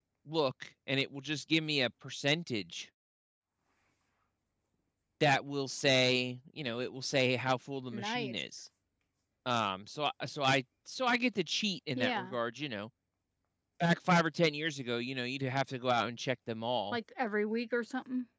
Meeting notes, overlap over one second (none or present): none